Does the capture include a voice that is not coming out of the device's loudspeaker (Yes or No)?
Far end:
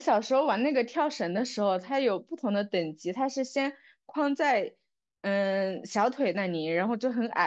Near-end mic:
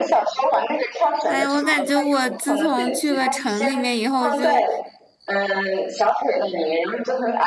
Yes